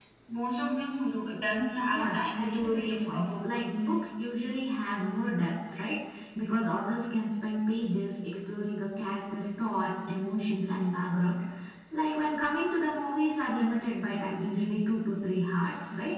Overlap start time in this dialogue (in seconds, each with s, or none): 1.9 s